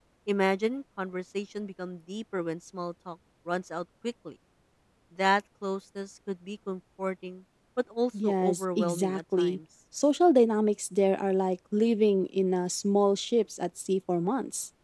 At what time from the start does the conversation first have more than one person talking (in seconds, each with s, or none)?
8.1 s